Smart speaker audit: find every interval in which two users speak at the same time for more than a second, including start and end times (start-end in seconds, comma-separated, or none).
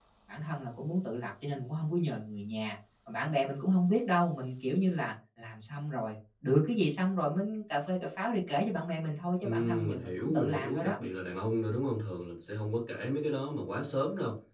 9.4-10.9